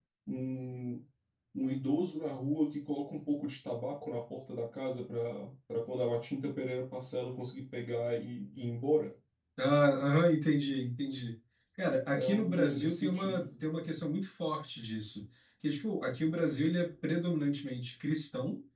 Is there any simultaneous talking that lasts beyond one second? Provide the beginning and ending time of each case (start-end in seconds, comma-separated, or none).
12.2-13.4